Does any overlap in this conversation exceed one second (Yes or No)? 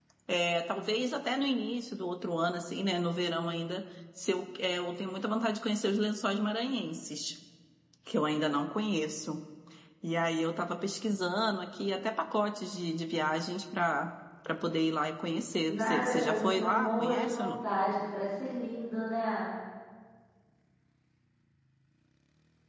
Yes